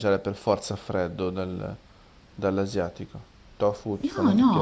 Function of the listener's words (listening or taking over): taking over